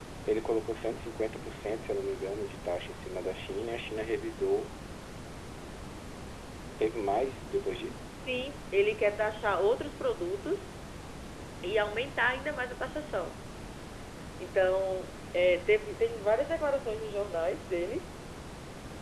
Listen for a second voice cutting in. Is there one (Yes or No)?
No